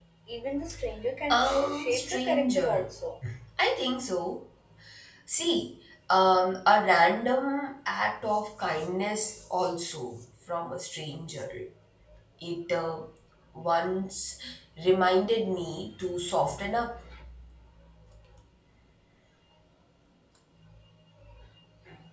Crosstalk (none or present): present